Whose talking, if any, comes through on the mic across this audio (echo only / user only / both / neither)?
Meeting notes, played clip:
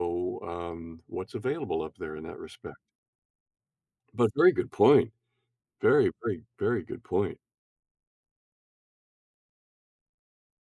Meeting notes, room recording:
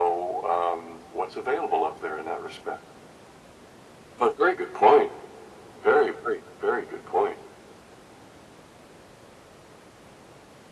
echo only